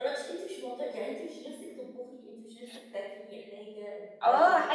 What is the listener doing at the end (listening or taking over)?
taking over